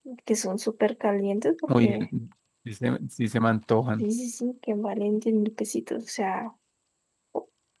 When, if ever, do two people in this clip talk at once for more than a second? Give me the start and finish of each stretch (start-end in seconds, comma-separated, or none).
none